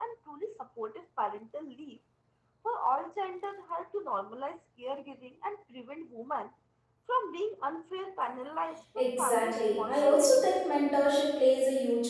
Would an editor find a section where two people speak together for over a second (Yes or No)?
Yes